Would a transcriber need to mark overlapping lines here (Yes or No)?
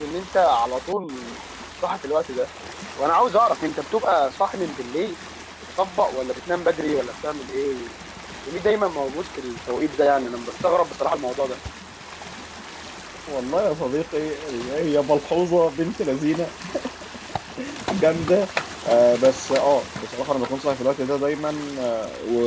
No